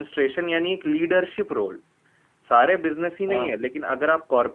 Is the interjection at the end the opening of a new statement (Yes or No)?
No